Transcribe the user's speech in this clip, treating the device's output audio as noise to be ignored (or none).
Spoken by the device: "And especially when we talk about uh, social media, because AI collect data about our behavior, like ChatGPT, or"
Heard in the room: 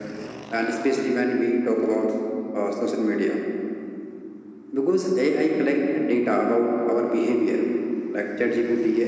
none